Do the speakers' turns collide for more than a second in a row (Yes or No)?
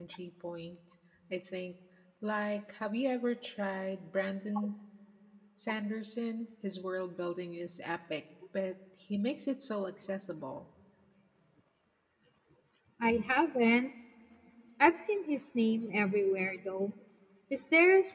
No